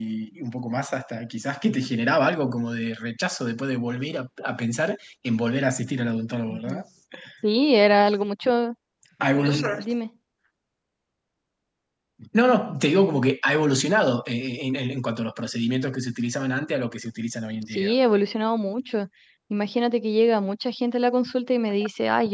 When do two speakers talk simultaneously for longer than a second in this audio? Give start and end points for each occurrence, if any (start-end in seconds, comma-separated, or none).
none